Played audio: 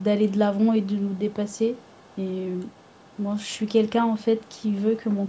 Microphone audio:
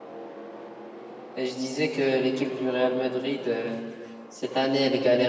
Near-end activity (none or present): present